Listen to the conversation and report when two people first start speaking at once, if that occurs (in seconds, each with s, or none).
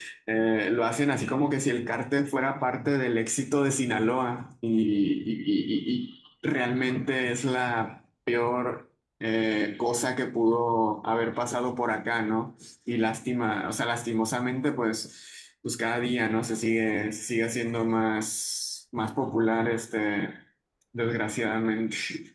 none